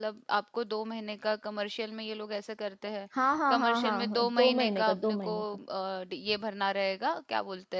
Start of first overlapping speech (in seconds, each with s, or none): 3.5 s